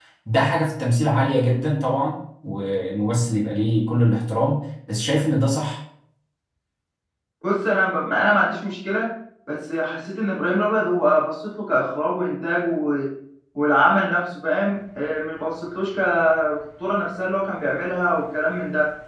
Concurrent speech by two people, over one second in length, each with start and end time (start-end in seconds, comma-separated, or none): none